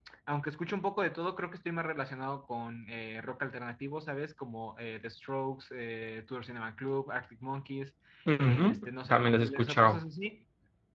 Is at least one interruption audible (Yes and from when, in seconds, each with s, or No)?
Yes, from 8.4 s